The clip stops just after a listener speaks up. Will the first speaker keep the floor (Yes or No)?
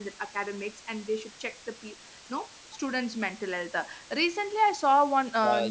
Yes